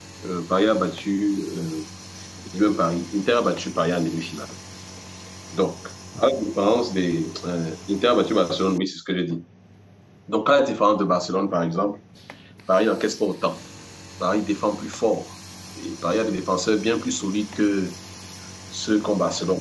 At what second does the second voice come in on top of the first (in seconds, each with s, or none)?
none